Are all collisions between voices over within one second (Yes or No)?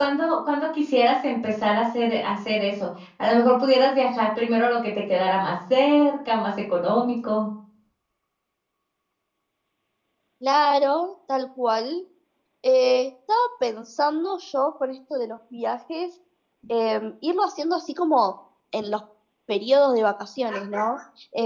Yes